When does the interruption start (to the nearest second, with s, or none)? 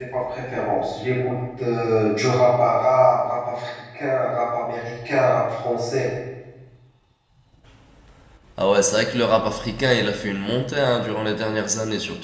none